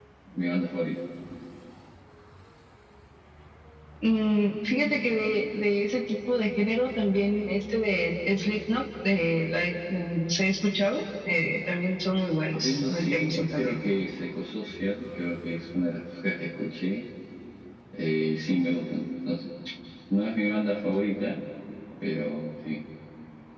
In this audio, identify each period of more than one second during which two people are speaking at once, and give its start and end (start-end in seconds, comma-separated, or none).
12.5-13.7